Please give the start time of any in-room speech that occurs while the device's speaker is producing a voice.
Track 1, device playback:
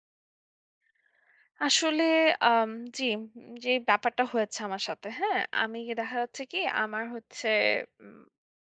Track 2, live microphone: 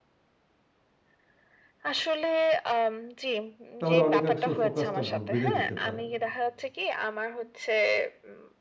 3.8 s

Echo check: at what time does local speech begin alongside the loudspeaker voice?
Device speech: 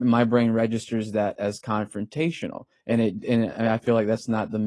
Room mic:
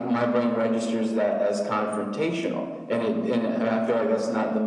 none

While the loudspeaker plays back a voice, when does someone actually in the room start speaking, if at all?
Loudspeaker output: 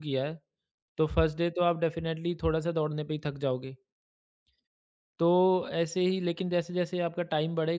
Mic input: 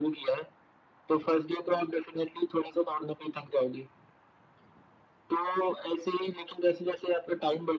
none

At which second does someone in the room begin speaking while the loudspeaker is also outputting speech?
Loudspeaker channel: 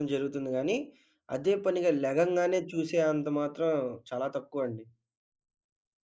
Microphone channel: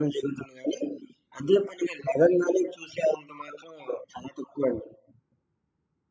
none

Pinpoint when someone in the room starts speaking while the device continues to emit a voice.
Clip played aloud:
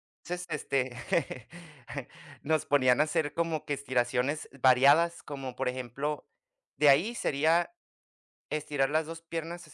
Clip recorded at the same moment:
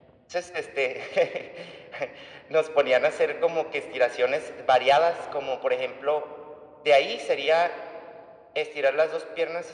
none

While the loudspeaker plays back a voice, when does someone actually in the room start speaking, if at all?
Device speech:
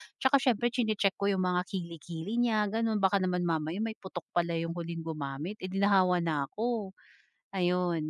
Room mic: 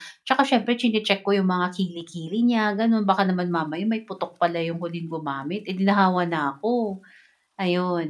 none

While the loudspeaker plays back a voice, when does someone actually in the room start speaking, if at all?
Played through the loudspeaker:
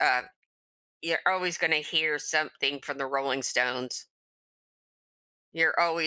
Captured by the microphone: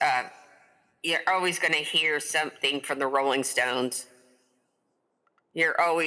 none

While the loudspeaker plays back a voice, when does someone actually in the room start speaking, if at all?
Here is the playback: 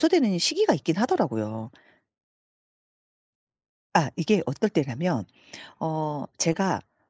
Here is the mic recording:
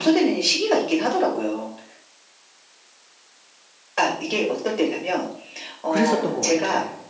5.9 s

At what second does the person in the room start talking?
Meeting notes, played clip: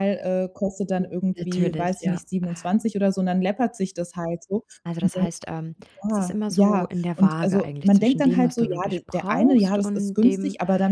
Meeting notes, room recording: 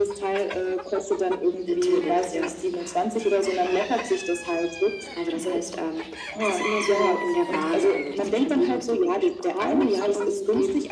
none

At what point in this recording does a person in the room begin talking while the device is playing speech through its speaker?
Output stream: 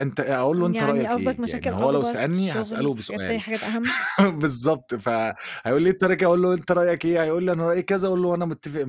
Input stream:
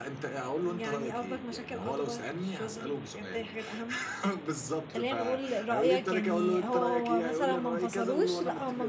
4.9 s

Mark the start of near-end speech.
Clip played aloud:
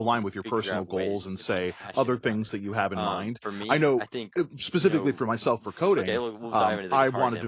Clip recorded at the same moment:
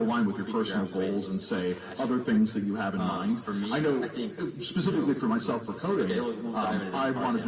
none

